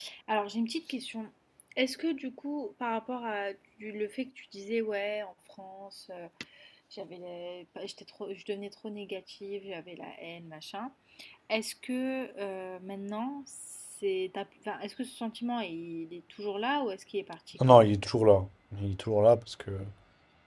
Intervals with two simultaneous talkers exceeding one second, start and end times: none

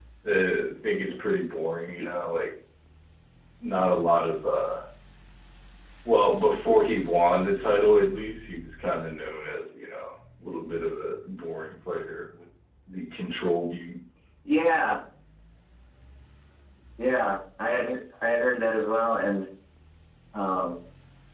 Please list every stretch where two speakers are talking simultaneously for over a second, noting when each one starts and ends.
none

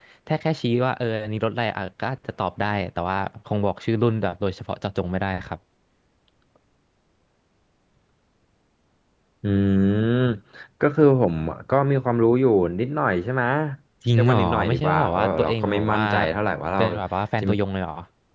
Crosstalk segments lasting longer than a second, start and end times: 14.2-16.0

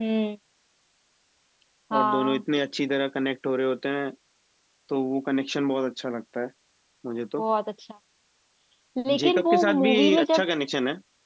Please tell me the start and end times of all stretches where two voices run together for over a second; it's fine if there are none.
9.2-10.4

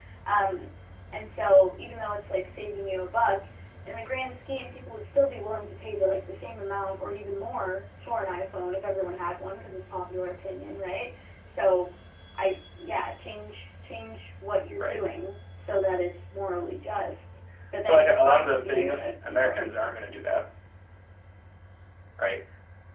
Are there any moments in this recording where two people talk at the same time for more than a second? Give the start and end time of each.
17.9-20.2

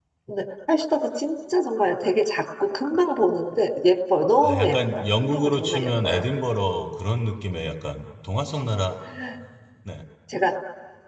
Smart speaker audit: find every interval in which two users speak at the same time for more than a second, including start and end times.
4.4-6.2

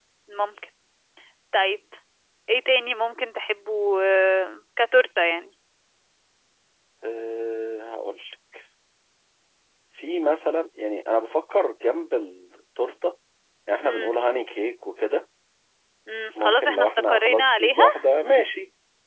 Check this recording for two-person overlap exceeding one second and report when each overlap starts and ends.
16.4-17.8

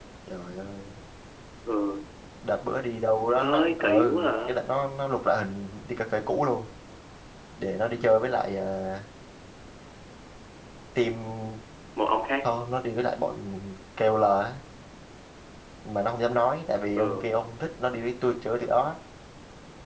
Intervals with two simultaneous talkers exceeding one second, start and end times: 3.4-4.6

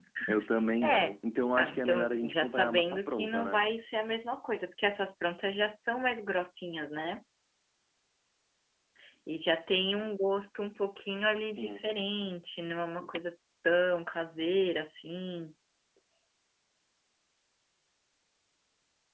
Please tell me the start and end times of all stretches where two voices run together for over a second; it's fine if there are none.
1.6-3.6

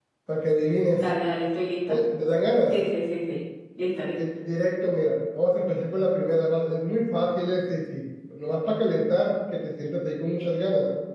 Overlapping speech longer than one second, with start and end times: none

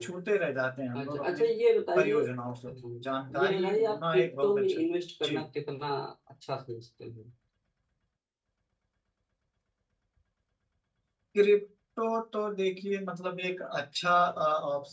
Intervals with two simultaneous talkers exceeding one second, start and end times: 3.4-4.8

